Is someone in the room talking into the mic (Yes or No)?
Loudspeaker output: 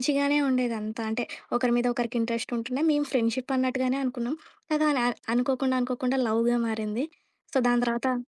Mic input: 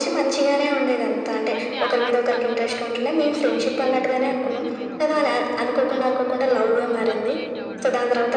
Yes